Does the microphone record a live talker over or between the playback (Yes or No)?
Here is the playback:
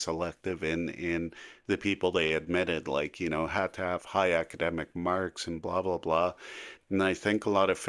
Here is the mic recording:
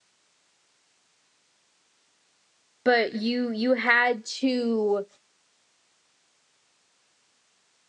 Yes